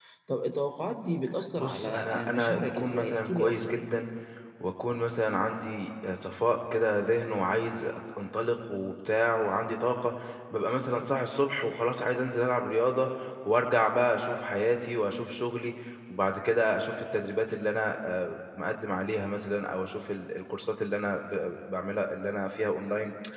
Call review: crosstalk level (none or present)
present